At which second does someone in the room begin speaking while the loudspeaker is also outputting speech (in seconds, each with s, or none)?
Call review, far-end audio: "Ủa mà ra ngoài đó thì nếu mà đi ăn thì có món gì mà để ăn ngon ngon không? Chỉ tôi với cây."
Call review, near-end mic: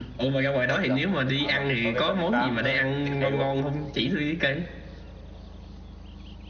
0.7 s